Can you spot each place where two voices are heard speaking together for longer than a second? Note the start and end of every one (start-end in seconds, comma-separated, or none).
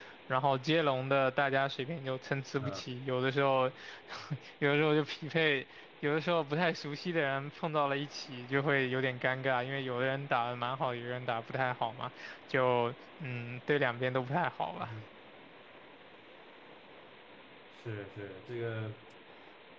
none